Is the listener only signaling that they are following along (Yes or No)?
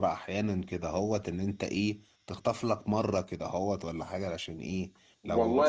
No